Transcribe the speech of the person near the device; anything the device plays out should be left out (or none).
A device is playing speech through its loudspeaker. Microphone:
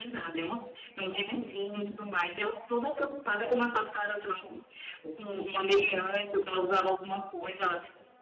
none